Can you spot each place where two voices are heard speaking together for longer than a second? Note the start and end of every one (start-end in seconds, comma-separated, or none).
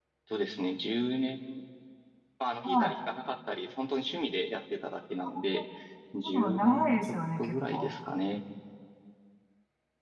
6.2-7.9